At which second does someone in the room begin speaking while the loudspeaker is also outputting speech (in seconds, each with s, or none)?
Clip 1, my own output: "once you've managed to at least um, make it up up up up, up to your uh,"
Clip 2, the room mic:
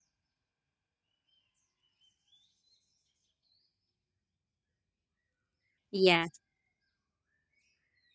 5.9 s